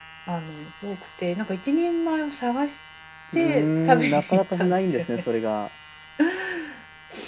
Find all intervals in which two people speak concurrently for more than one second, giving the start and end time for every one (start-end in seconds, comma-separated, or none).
3.3-5.2